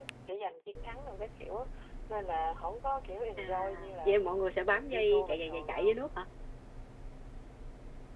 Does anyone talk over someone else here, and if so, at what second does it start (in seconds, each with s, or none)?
3.4 s